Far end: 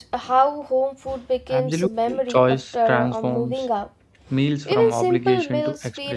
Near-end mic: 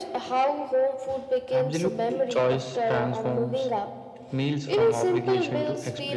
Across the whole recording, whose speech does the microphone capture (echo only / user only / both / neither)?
echo only